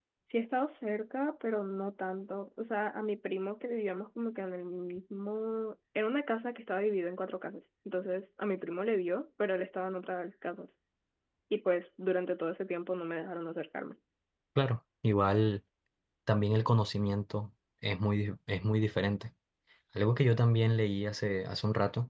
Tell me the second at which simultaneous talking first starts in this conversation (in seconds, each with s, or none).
none